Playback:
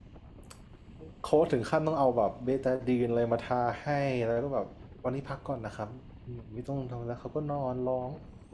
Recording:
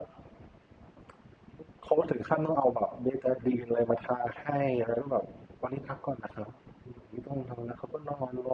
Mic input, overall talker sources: echo only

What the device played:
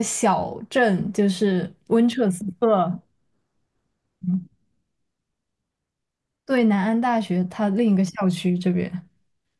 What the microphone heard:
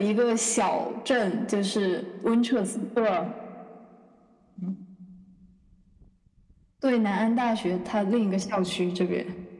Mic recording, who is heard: echo only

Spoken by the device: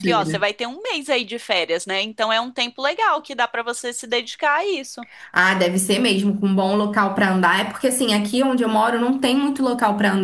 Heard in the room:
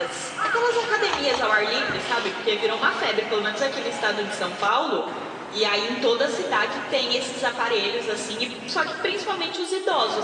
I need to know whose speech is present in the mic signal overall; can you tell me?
user only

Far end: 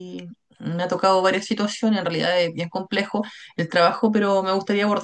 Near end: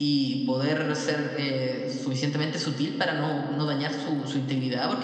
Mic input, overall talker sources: user only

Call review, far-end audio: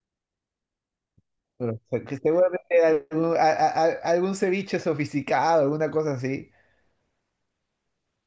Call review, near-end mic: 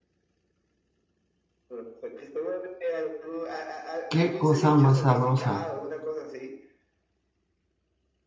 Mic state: both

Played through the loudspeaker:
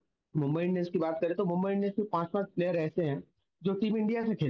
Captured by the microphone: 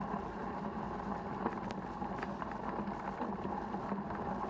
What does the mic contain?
neither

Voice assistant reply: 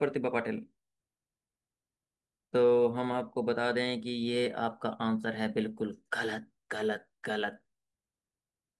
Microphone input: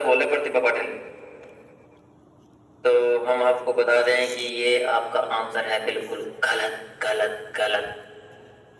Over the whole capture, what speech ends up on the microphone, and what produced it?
echo only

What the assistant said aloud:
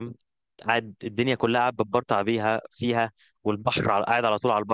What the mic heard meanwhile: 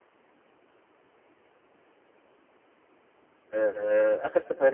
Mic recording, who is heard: user only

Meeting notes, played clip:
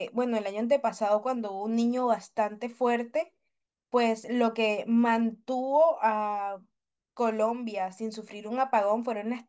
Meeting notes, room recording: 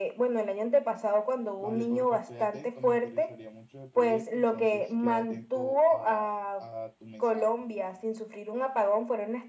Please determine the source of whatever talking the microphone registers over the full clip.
both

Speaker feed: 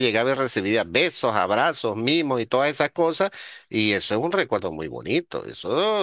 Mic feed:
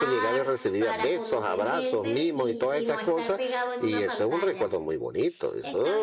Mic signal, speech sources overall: both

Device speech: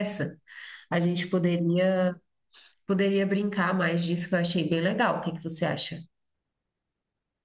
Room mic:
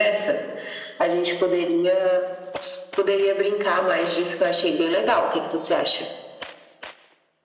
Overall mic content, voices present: echo only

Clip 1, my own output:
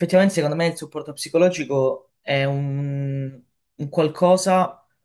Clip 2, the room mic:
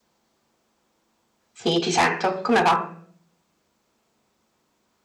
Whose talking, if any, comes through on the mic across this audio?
user only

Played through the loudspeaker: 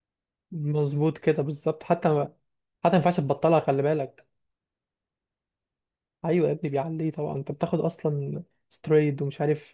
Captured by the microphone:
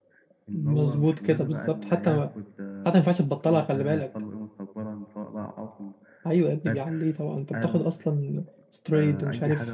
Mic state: both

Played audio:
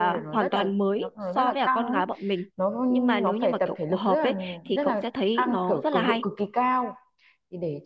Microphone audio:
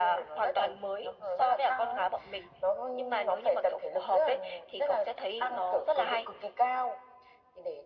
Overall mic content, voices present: echo only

